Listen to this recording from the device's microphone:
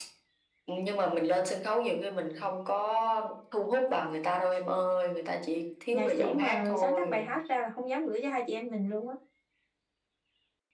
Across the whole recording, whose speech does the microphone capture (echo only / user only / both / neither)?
both